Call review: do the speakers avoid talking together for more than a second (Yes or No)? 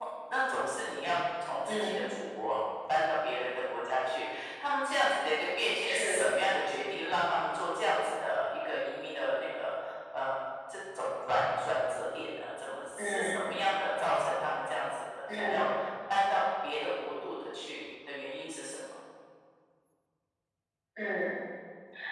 Yes